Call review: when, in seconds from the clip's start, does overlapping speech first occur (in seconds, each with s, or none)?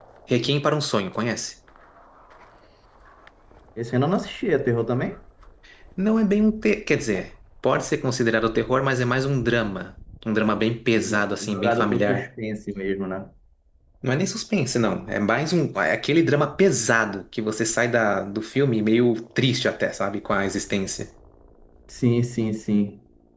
10.9 s